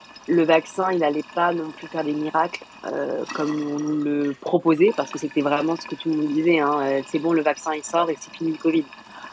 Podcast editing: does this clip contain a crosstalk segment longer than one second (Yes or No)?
No